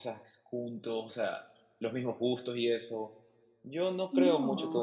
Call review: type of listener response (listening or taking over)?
listening